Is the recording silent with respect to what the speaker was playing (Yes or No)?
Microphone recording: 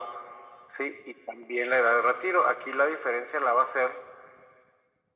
No